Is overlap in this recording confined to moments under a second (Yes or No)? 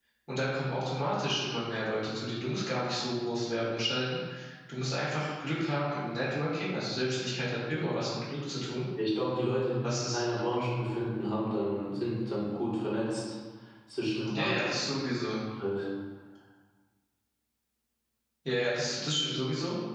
Yes